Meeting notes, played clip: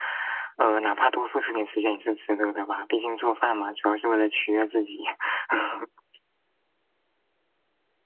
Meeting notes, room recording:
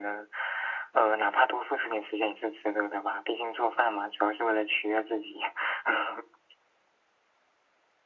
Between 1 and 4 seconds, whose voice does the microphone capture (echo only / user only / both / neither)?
echo only